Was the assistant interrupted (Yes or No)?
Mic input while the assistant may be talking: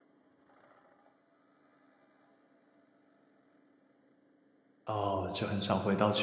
Yes